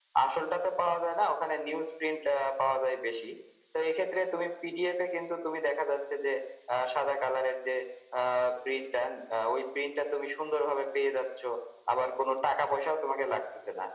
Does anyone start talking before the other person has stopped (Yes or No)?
No